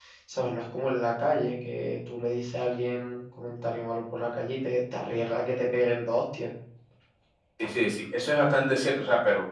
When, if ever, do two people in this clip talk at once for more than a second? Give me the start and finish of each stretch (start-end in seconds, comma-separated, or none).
none